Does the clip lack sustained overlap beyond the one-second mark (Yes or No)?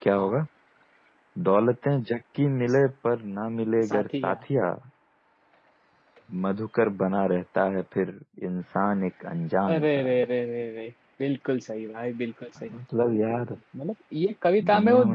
Yes